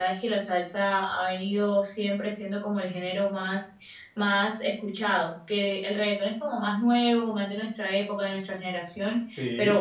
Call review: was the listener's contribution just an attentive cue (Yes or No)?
Yes